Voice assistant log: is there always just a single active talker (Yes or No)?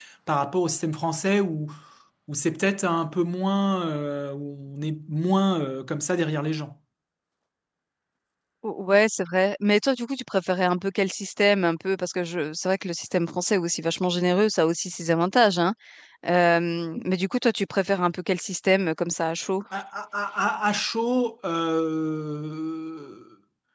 Yes